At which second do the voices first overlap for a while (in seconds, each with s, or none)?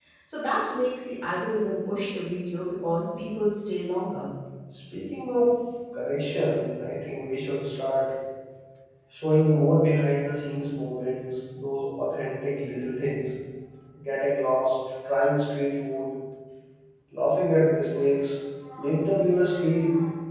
none